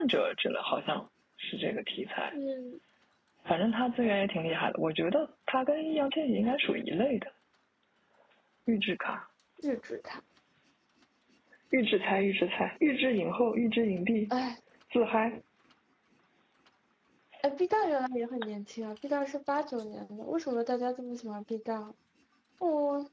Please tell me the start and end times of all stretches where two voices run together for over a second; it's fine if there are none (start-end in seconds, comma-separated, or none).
none